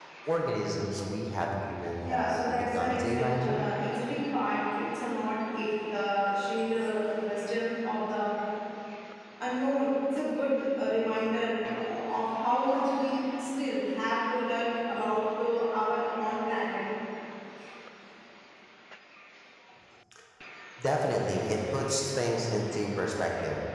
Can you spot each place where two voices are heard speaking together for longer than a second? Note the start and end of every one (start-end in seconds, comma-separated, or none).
2.0-3.6